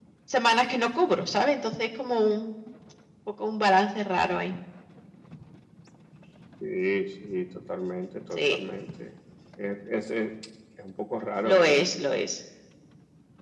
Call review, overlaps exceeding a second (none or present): none